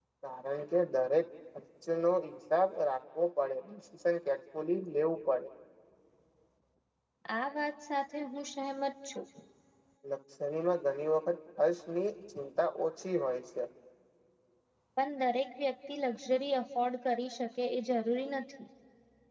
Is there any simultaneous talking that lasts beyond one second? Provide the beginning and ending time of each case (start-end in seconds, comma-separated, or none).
none